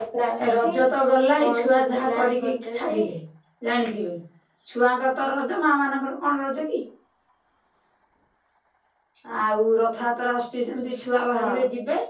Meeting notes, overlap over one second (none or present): present